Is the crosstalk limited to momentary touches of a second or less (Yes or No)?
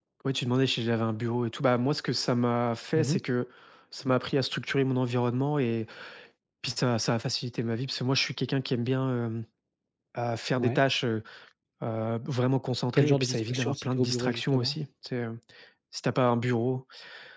No